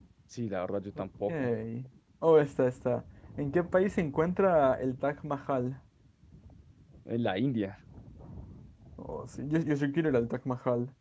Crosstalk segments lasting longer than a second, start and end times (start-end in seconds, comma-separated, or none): none